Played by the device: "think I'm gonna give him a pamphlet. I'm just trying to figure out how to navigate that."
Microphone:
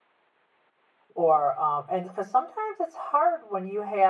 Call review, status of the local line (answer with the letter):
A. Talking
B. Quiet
A